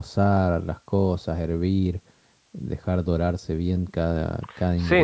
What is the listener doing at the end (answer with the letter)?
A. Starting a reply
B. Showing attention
A